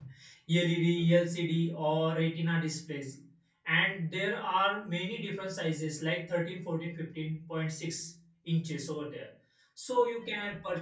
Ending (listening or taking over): listening